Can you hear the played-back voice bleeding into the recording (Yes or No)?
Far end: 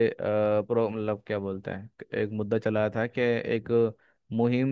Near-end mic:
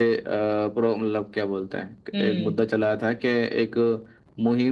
Yes